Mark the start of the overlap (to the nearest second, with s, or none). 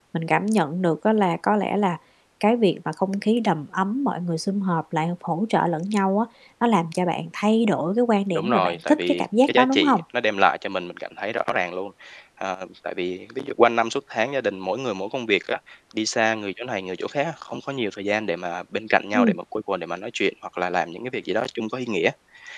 8 s